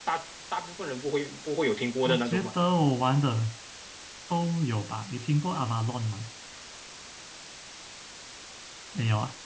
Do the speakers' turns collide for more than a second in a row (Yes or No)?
No